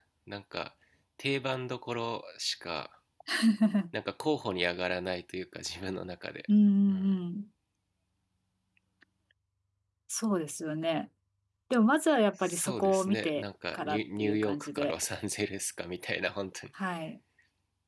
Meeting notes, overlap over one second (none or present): present